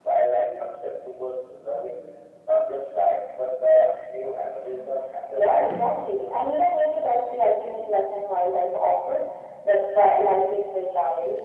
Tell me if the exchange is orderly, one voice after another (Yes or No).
No